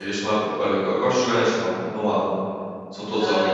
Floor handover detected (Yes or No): Yes